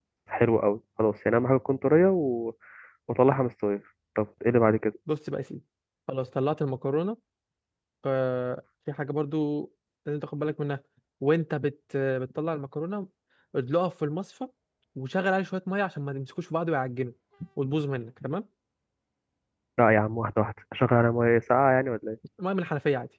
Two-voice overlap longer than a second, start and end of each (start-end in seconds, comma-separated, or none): none